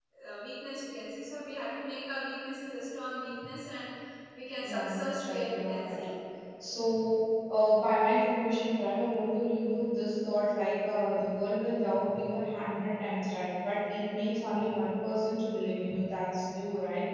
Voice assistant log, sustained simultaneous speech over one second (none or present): present